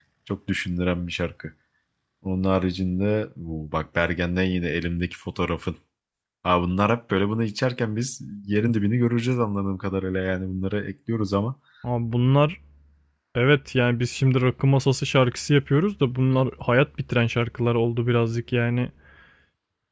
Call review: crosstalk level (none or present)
none